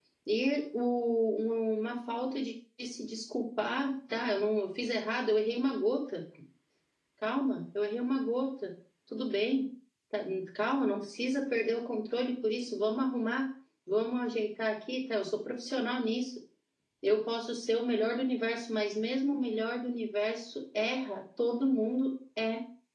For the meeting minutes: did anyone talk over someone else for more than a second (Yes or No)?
No